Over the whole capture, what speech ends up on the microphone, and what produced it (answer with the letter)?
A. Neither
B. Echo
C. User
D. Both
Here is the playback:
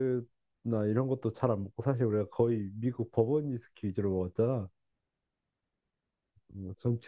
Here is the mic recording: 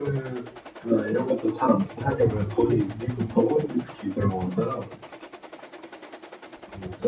B